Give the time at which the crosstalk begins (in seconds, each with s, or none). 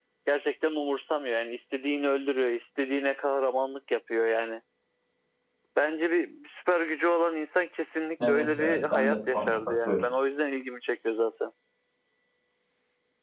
8.2 s